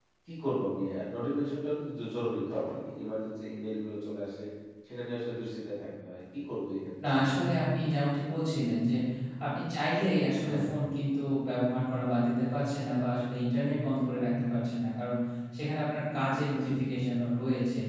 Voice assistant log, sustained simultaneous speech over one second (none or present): none